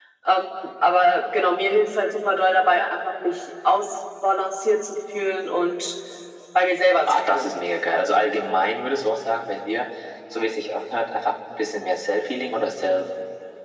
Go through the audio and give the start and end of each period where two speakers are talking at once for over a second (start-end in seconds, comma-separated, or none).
none